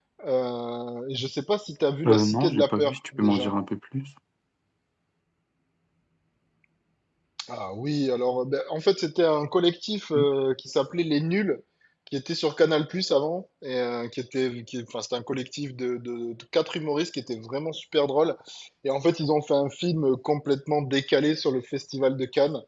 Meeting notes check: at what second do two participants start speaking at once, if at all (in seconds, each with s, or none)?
2.0 s